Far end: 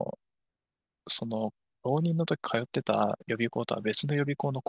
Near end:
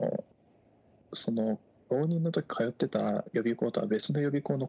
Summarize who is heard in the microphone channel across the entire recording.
echo only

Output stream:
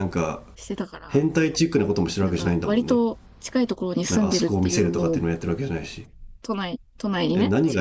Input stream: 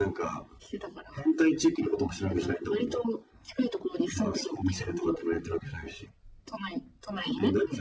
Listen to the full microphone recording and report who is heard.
echo only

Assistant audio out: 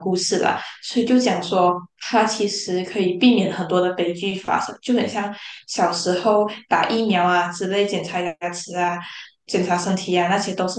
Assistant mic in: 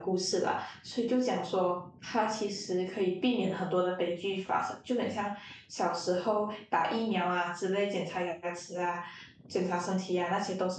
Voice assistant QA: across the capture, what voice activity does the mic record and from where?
echo only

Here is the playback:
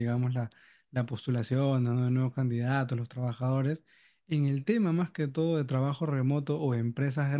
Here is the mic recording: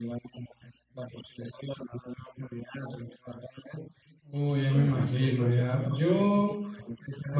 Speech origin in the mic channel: both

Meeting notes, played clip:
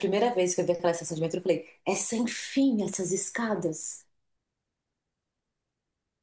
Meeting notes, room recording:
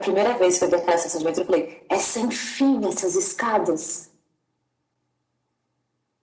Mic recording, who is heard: echo only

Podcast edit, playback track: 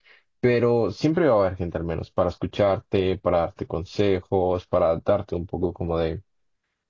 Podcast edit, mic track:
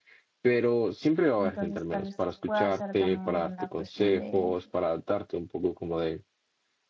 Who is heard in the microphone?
both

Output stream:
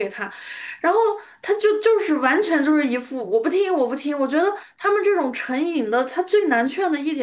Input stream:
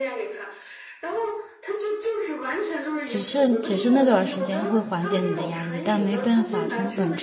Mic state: both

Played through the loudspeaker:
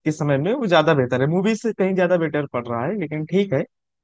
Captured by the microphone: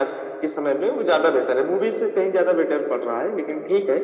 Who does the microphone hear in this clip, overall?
echo only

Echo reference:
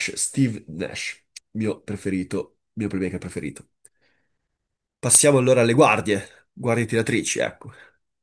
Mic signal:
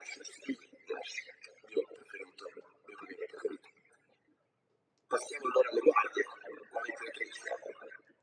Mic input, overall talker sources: echo only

